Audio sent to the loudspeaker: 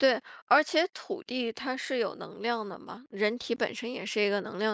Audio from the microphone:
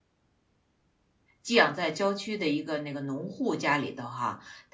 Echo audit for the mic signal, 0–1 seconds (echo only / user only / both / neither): neither